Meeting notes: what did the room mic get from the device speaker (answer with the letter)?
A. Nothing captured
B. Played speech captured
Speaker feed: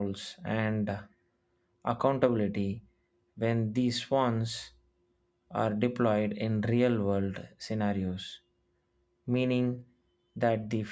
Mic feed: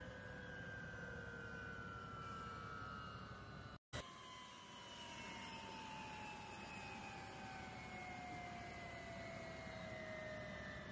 A